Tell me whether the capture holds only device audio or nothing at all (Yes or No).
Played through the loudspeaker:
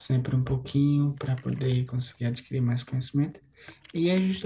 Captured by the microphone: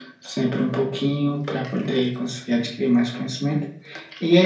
Yes